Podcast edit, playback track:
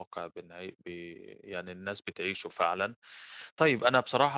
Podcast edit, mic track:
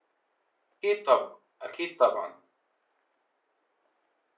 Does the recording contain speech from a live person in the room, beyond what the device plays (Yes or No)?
Yes